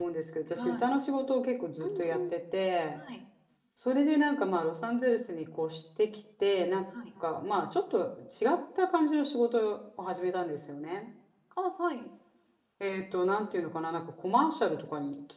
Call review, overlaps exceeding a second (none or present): none